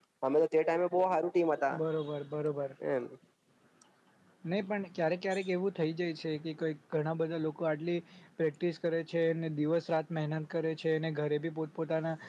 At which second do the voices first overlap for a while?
none

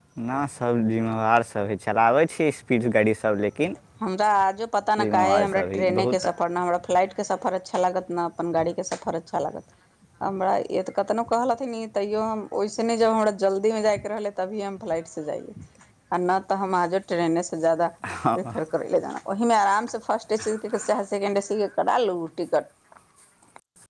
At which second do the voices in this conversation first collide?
5 s

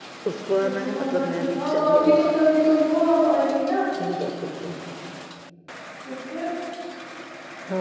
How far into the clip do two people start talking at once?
1 s

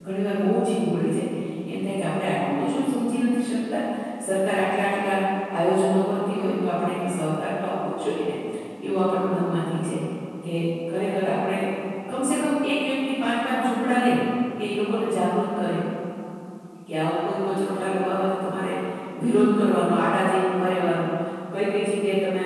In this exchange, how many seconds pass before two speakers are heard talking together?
none

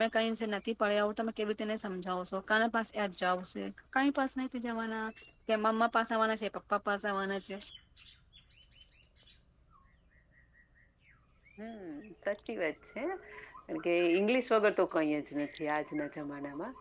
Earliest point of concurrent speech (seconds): none

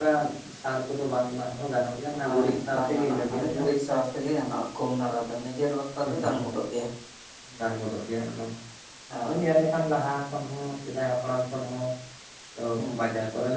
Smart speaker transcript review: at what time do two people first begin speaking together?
2 s

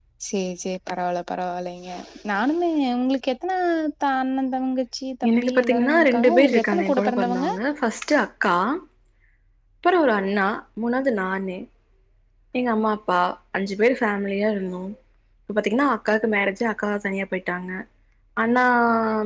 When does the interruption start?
5 s

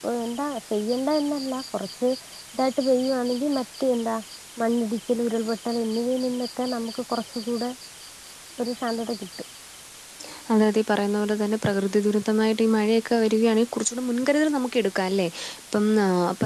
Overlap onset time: none

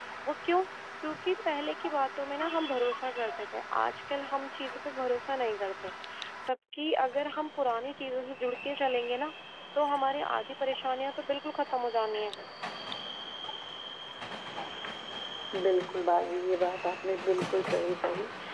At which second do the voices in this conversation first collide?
none

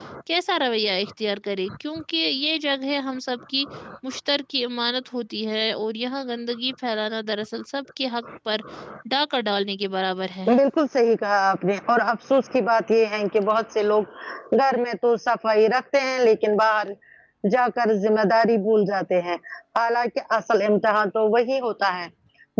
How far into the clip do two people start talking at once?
none

